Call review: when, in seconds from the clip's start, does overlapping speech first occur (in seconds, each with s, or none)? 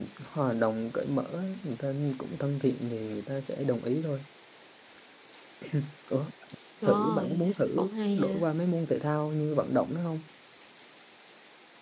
6.8 s